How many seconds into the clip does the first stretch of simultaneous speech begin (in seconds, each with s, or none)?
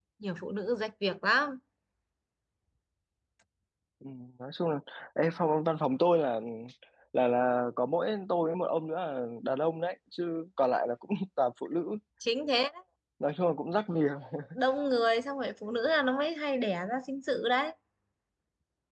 none